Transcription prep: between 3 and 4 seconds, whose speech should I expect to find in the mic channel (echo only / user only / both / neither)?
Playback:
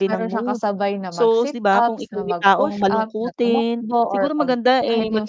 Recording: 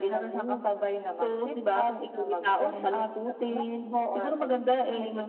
echo only